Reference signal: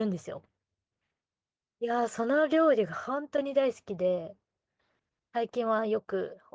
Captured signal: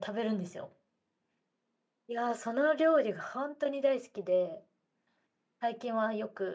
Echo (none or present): present